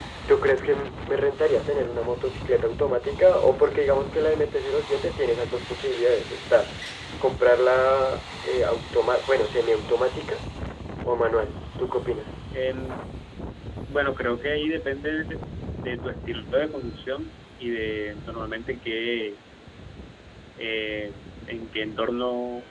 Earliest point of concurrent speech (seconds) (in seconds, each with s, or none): none